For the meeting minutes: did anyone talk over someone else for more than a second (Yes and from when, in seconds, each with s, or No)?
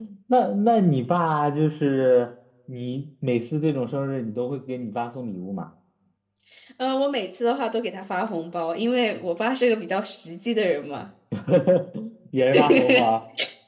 No